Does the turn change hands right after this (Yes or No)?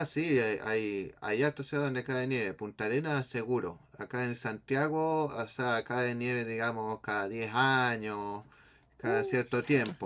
No